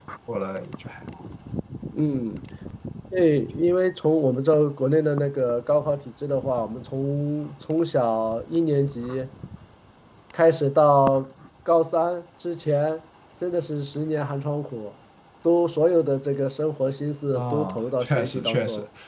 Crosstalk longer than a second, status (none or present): present